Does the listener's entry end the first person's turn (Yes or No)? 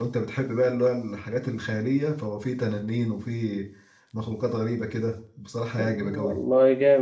Yes